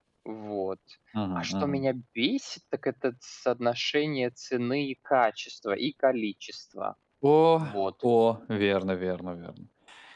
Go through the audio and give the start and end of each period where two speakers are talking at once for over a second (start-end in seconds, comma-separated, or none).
none